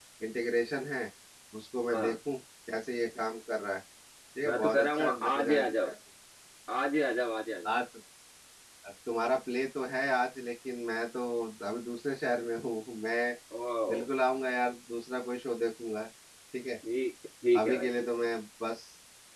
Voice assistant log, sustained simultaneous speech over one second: present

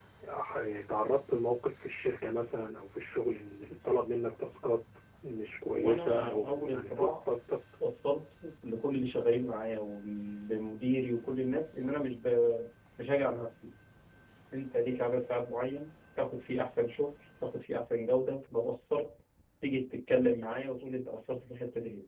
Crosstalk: present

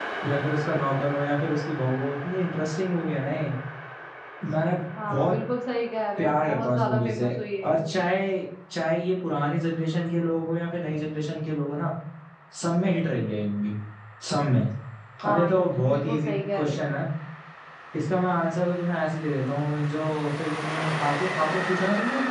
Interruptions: present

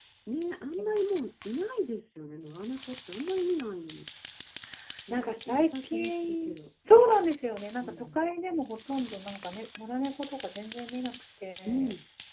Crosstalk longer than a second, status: present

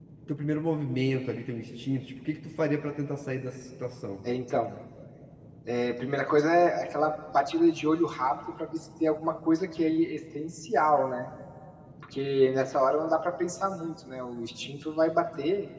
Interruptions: none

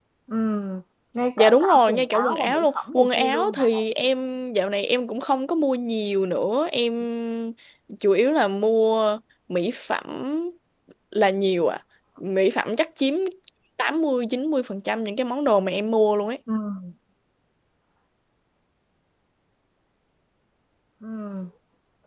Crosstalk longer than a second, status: present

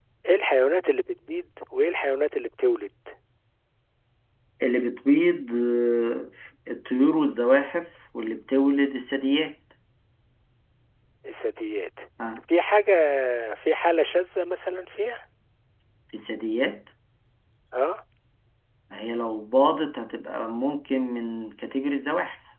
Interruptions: none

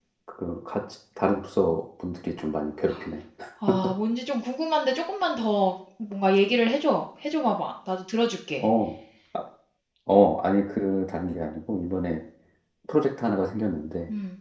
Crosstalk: none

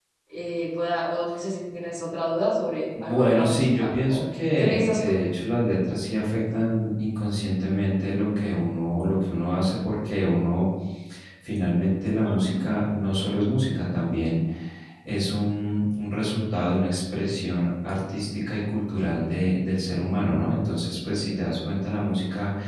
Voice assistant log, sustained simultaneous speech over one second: present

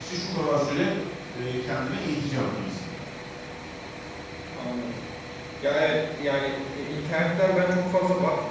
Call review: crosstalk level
none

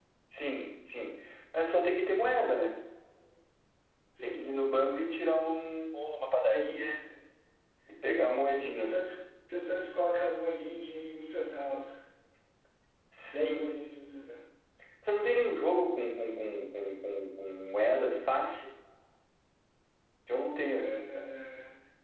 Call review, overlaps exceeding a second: none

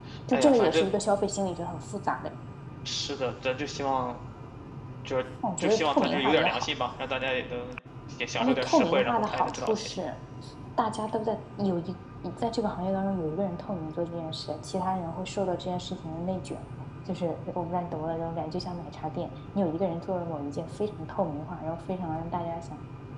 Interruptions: present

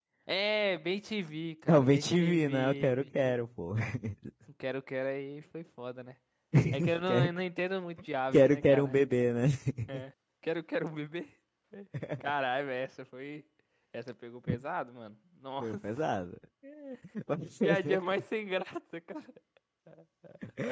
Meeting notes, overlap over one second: present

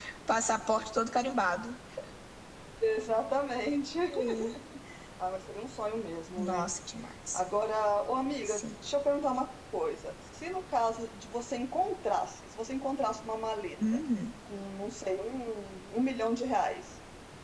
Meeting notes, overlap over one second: none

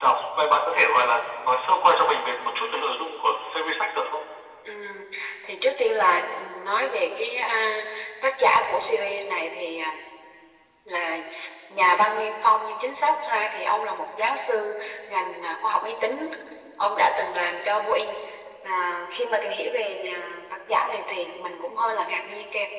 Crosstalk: none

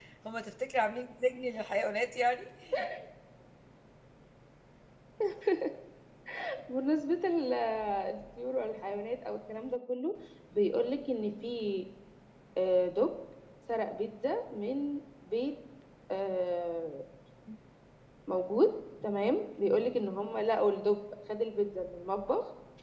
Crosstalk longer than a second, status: none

